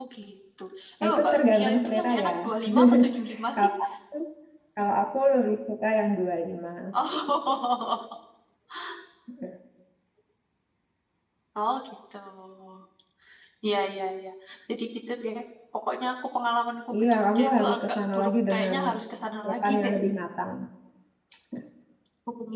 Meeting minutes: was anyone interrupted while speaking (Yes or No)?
Yes